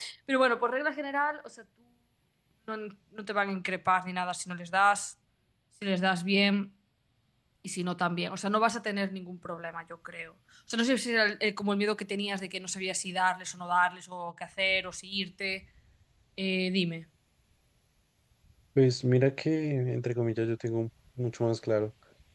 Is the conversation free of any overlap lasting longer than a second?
Yes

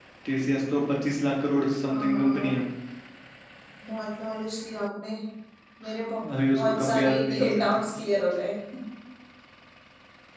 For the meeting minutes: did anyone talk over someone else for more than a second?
Yes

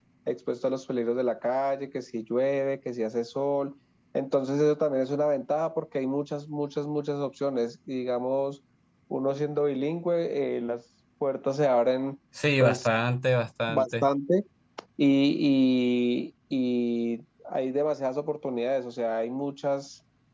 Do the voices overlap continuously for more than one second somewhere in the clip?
No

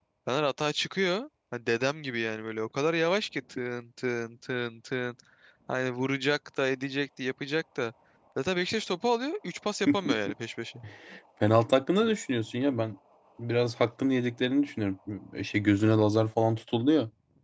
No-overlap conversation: Yes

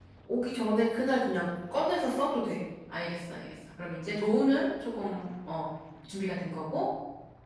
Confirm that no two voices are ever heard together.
Yes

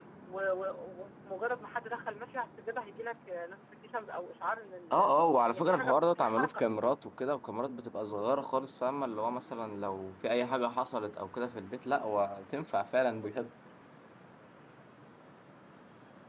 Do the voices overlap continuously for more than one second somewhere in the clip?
Yes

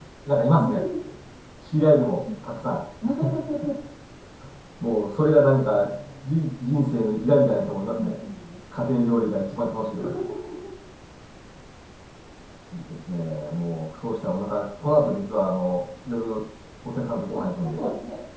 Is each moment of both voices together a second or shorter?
Yes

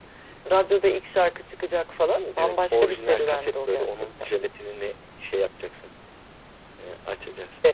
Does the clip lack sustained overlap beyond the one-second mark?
No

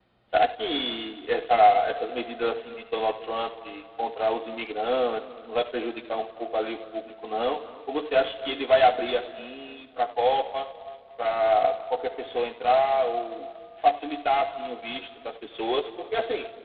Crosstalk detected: No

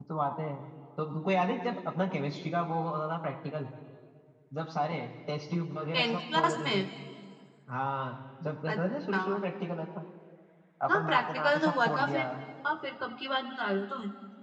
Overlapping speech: Yes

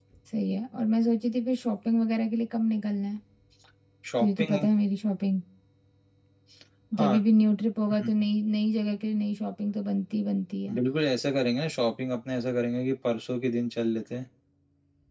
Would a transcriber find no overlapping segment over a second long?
Yes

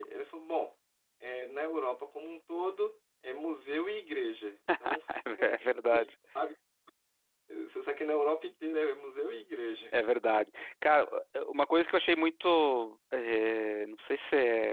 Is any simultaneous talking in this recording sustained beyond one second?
No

